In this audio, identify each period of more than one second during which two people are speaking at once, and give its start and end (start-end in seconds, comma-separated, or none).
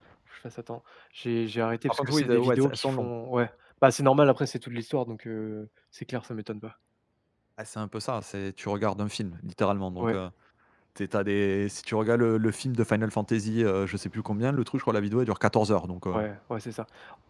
1.9-3.1